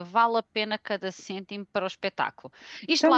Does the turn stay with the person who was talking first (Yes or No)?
No